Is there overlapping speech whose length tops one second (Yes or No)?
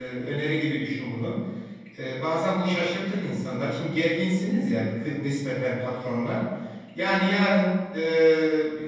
No